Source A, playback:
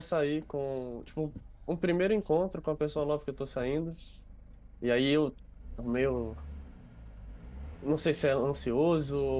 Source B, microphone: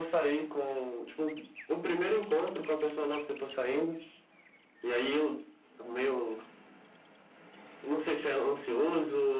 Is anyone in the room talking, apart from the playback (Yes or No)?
No